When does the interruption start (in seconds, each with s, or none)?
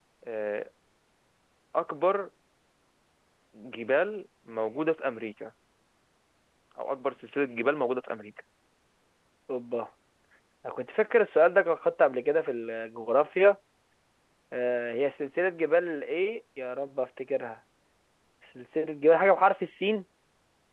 none